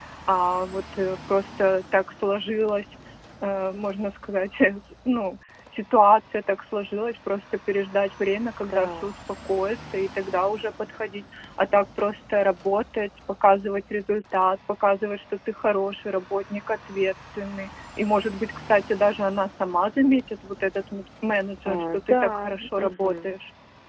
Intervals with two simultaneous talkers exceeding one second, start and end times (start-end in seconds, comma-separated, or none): 21.6-23.3